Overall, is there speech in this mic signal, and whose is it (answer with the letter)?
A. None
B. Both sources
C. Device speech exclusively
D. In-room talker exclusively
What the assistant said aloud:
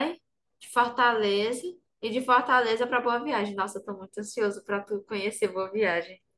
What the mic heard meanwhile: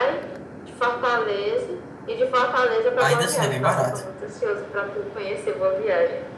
B